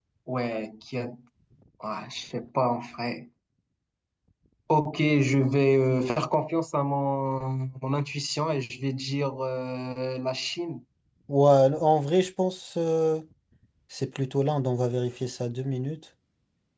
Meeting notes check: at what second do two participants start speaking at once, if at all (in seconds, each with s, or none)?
none